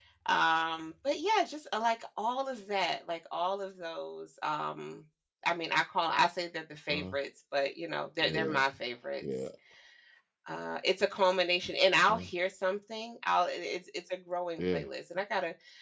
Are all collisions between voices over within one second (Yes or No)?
Yes